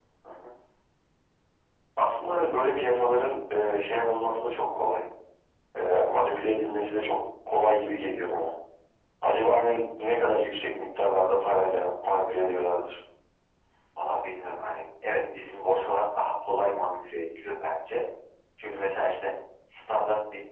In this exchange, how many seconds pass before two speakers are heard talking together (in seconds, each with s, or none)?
none